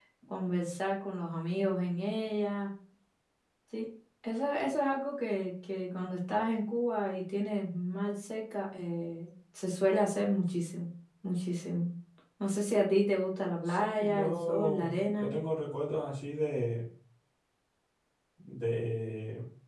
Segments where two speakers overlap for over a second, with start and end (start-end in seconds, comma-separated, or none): 13.7-15.3